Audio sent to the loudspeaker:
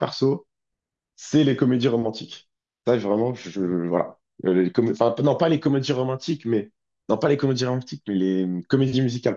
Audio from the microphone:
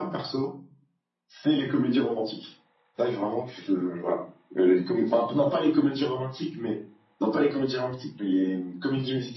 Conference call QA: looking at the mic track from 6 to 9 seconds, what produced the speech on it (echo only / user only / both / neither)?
echo only